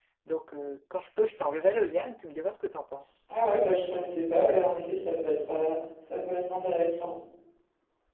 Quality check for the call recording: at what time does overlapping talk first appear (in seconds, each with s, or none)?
none